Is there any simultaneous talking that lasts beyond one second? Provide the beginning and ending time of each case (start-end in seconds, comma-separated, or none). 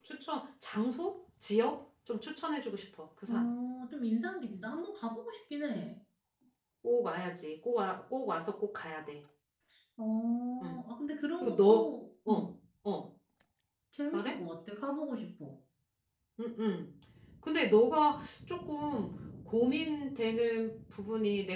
none